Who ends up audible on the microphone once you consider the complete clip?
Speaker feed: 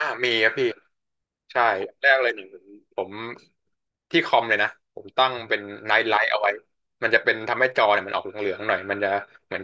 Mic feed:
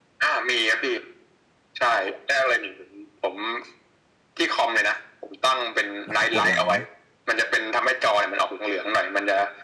both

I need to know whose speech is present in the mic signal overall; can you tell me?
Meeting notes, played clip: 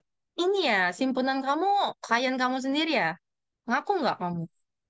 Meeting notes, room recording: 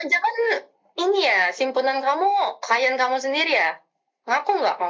echo only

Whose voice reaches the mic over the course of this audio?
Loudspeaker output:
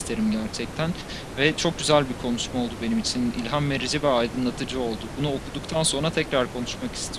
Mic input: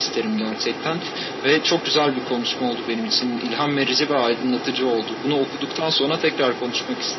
echo only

